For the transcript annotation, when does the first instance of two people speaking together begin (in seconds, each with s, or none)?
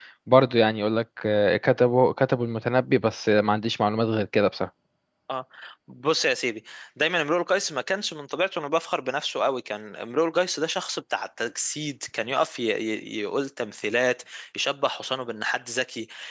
none